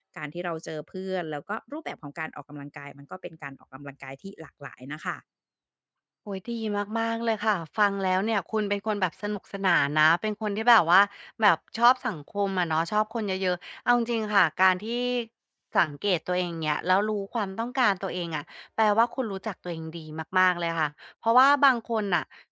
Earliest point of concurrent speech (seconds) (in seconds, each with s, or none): none